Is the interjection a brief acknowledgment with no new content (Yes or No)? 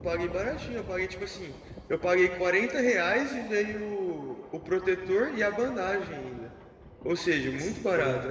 No